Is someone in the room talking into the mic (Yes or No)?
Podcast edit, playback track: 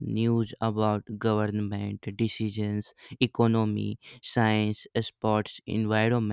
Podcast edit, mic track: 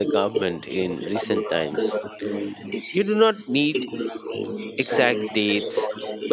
Yes